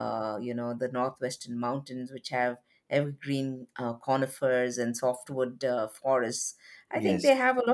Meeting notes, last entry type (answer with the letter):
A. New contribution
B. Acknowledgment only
B